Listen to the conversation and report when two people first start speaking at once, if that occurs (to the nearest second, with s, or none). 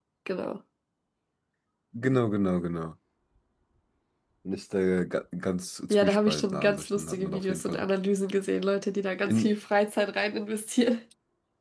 6 s